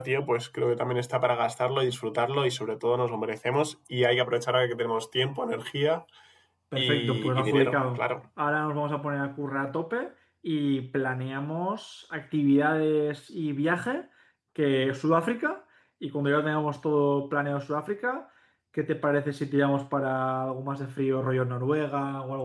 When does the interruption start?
6.8 s

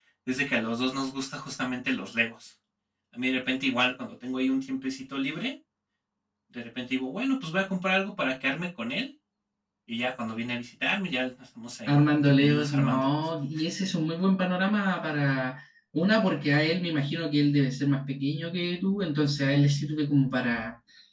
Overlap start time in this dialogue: 11.9 s

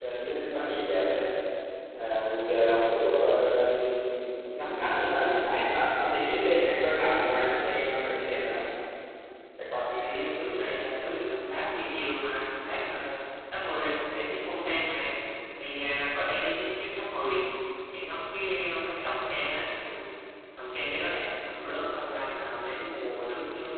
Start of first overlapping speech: none

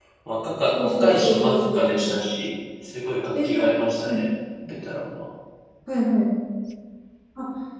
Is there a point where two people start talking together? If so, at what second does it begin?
0.7 s

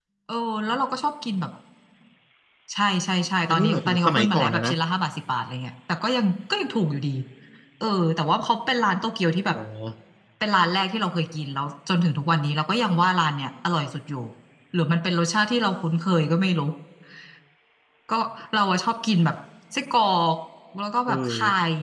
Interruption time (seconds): 3.5 s

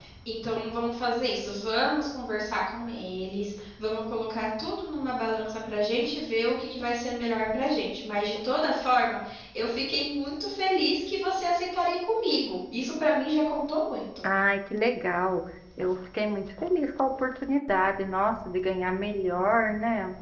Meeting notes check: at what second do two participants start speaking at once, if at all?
none

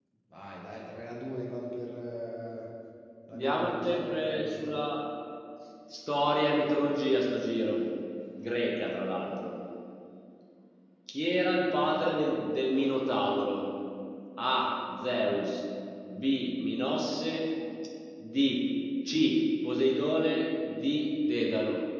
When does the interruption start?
3.3 s

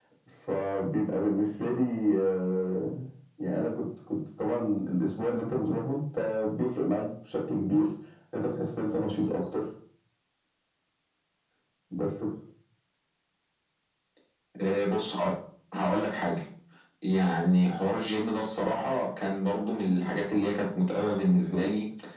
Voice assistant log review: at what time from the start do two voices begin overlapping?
none

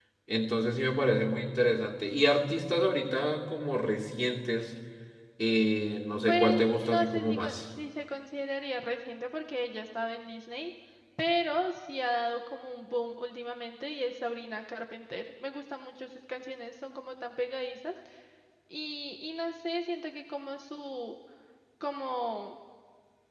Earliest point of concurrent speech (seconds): 6.3 s

